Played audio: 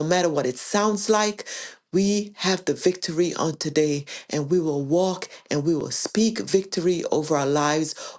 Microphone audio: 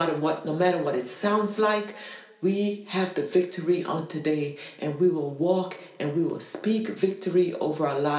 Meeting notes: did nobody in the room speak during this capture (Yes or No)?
Yes